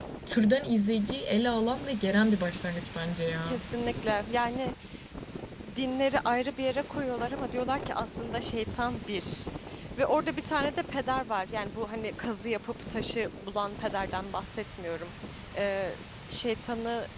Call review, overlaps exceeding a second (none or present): none